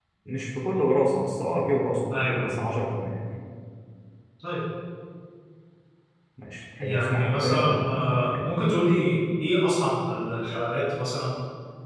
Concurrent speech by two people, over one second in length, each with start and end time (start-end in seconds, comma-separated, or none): 6.8-8.5